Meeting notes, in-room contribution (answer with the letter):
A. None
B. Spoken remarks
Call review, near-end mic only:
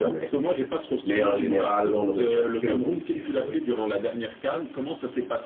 B